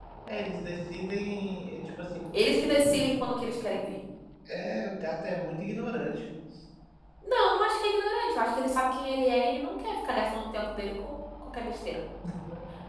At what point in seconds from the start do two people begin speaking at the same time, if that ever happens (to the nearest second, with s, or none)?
none